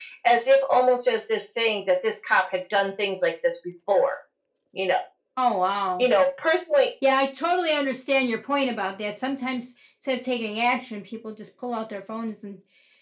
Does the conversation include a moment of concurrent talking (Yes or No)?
No